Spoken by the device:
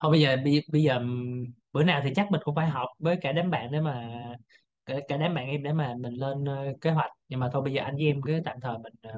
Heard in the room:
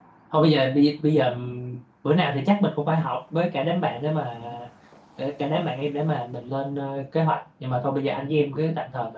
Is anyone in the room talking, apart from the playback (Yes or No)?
No